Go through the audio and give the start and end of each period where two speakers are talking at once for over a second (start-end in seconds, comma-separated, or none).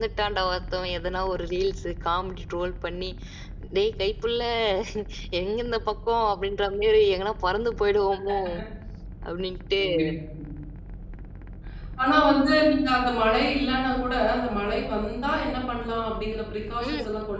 none